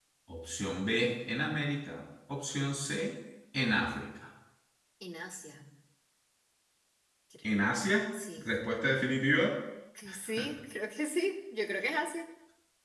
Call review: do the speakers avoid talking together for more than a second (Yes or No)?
Yes